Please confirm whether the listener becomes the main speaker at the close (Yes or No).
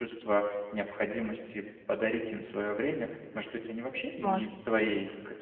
No